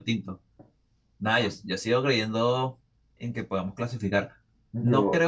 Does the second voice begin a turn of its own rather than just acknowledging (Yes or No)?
No